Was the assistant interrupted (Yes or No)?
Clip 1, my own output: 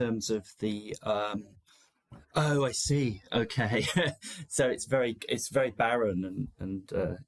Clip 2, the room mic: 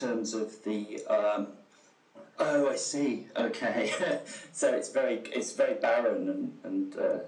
No